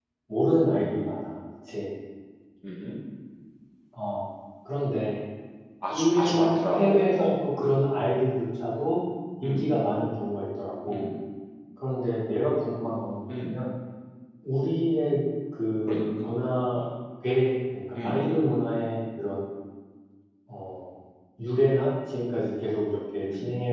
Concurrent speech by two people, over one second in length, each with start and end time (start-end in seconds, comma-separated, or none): 5.9-7.3